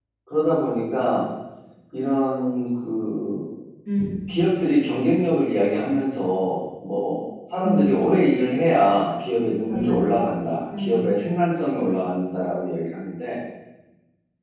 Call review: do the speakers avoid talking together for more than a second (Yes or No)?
Yes